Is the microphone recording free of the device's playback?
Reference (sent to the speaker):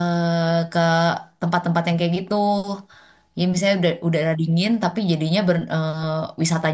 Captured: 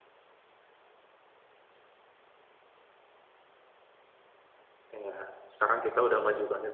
Yes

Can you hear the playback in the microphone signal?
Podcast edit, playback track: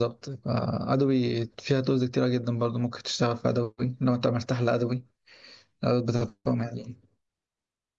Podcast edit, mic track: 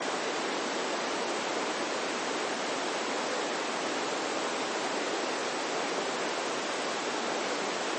No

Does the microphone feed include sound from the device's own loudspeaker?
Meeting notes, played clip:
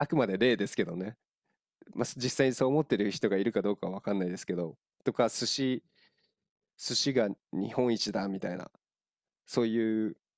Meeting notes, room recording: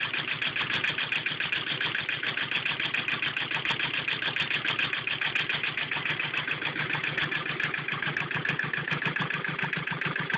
No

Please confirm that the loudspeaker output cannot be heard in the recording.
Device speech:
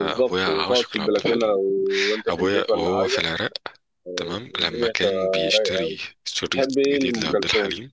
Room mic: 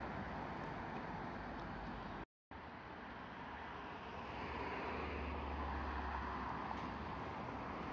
Yes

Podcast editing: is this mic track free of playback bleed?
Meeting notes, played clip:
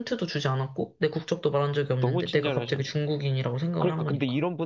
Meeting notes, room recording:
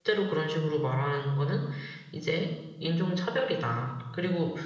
Yes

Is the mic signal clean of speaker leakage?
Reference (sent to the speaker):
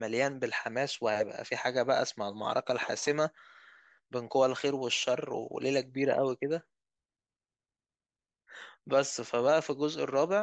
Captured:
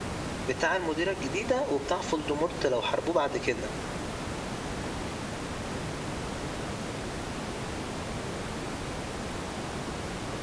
Yes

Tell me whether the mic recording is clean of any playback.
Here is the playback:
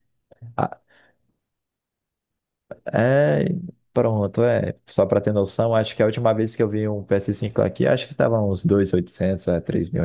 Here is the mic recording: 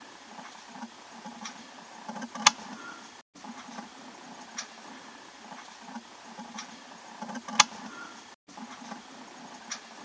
Yes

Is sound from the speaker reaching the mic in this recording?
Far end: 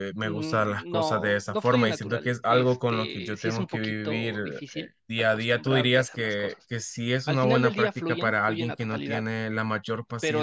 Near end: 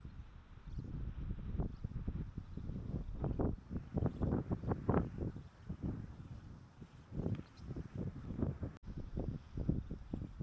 No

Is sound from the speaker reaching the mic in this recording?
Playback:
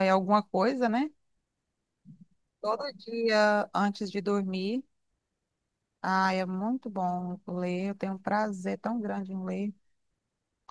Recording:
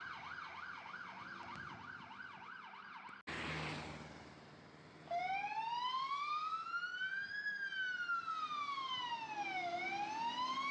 No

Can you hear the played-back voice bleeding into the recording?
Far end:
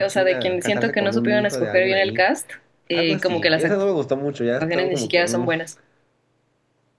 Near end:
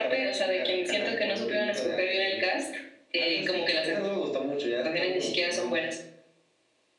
Yes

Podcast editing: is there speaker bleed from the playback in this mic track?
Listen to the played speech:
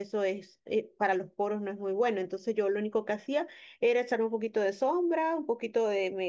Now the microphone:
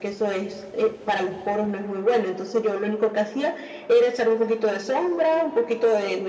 Yes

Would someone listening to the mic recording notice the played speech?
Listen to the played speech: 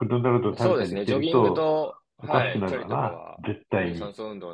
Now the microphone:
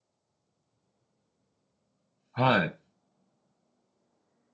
No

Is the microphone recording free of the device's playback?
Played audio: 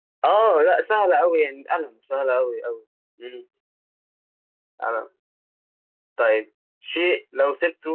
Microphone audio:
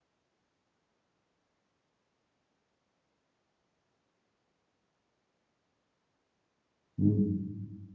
Yes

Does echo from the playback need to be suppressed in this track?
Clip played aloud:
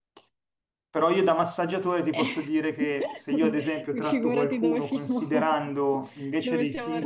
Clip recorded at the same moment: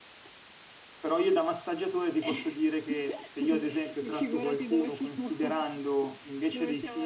Yes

